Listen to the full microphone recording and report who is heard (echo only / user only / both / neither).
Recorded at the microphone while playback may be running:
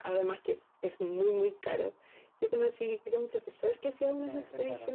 both